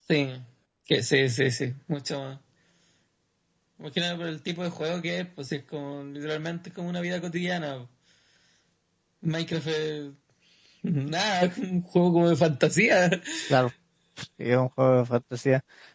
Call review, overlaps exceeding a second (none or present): none